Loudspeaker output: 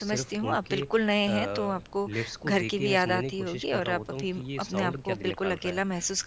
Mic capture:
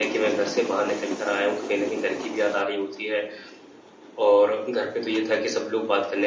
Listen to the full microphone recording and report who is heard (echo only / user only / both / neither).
user only